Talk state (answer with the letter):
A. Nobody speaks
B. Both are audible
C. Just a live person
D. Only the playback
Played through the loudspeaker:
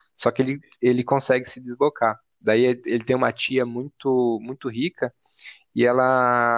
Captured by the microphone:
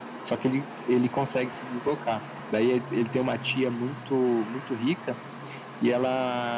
D